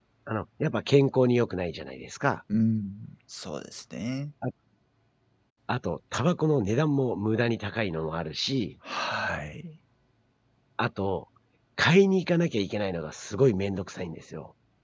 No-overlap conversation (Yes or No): Yes